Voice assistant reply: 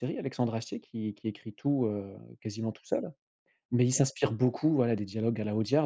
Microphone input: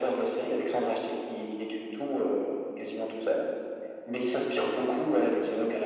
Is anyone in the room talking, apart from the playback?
No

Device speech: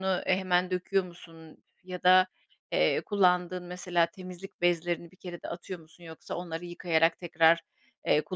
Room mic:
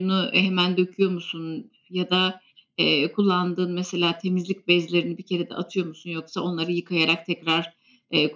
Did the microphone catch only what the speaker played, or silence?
Yes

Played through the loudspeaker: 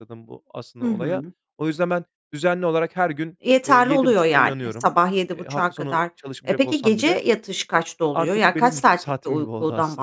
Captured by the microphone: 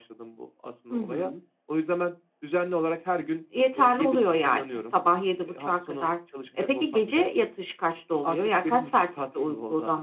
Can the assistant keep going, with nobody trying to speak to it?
Yes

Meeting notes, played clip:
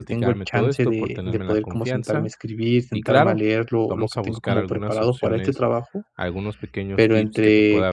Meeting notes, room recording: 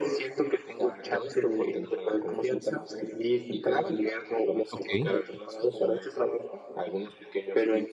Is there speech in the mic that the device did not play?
Yes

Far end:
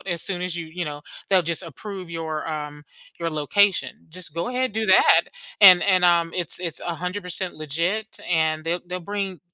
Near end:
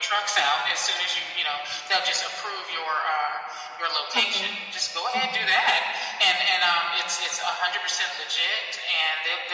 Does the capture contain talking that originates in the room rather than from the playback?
Yes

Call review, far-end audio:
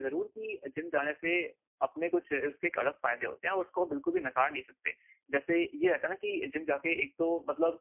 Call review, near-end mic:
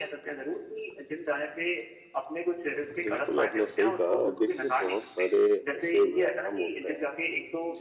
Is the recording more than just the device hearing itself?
Yes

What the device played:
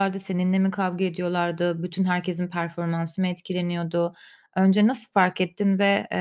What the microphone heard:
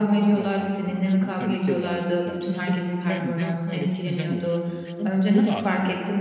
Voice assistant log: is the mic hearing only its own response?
No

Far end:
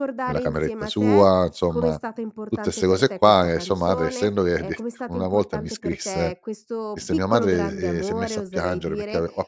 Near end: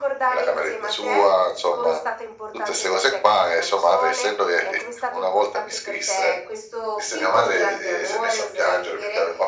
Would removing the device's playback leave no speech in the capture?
Yes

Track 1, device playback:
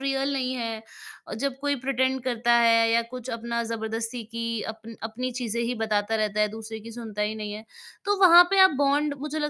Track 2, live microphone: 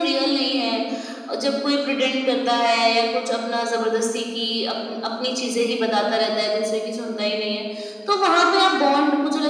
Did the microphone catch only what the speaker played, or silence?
Yes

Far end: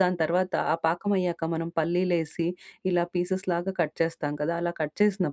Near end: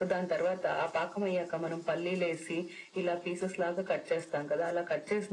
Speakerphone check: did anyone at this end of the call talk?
No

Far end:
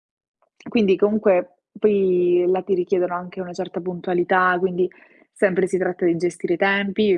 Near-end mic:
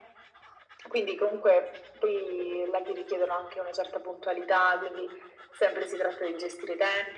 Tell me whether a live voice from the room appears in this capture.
No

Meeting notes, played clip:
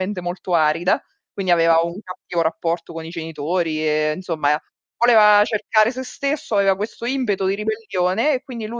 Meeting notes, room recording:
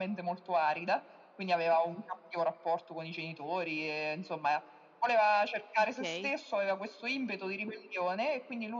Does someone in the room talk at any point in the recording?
Yes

